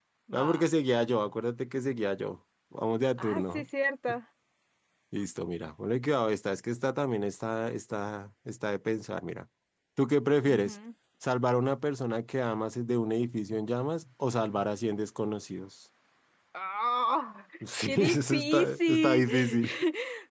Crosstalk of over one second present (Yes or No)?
Yes